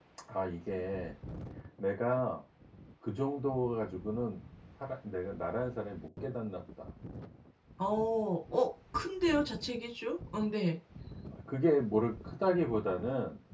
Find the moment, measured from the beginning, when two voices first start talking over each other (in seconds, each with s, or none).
none